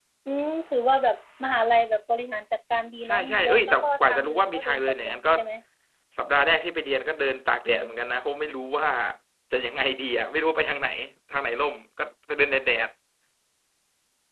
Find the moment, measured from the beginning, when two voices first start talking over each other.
3.0 s

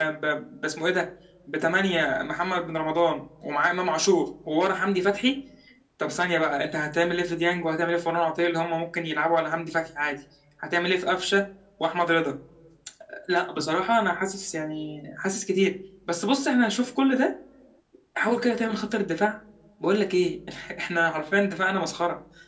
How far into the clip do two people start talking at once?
none

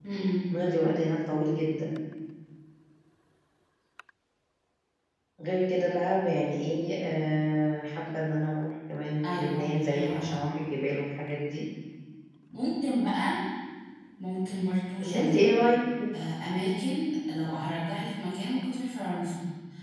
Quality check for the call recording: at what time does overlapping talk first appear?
9.2 s

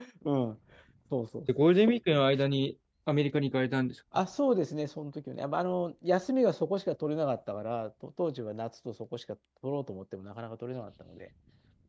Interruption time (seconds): none

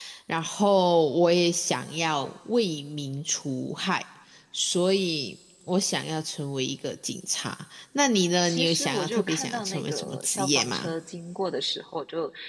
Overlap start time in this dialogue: 8.4 s

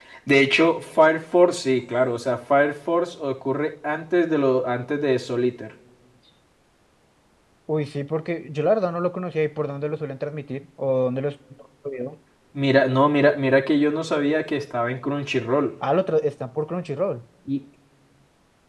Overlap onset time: none

